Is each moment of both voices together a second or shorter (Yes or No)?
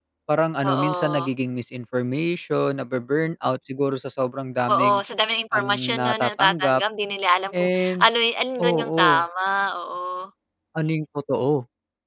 No